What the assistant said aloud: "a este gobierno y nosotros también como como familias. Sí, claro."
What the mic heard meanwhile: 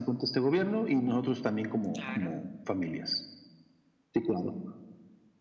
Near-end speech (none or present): present